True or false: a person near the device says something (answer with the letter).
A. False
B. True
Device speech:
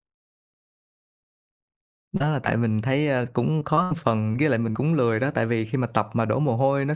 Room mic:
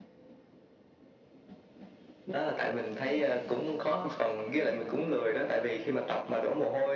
A